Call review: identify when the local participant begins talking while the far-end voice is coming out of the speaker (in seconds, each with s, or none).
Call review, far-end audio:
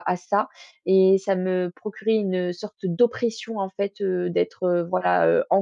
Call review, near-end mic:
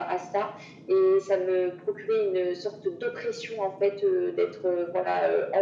none